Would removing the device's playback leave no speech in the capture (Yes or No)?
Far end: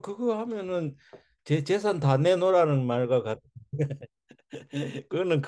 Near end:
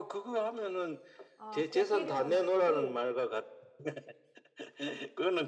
No